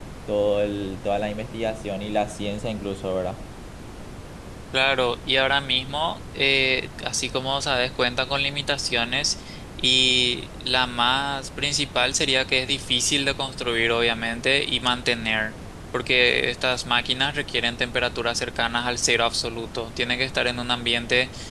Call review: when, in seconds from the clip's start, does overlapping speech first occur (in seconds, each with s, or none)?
none